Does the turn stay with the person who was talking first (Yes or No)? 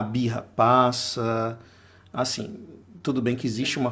Yes